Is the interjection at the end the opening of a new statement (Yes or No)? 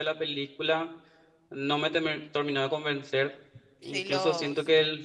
No